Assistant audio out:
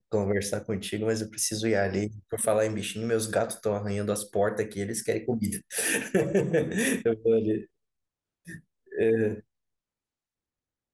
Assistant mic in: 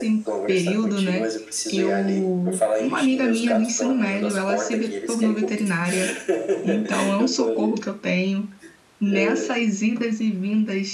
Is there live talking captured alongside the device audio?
Yes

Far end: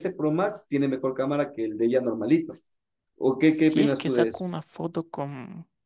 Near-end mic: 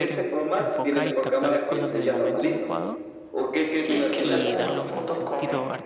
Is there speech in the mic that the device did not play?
Yes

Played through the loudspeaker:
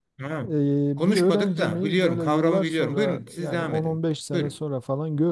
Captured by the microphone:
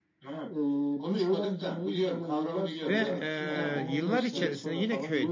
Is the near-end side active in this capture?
Yes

